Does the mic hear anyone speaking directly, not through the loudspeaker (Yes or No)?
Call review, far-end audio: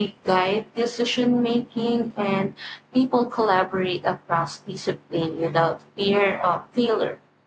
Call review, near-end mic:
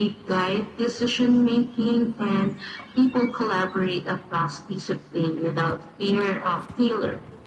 No